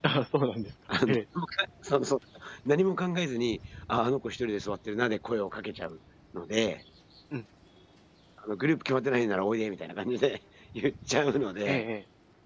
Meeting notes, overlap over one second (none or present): none